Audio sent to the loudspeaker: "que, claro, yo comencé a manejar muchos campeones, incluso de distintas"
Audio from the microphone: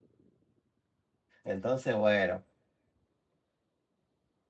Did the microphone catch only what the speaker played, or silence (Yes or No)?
No